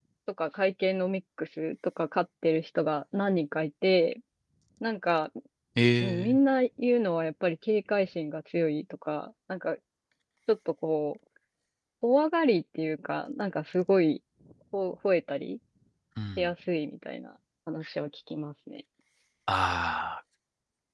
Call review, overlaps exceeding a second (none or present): none